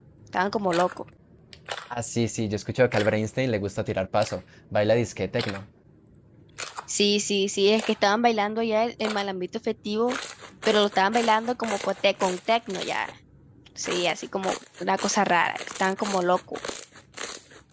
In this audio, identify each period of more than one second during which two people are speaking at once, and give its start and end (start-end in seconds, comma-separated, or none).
none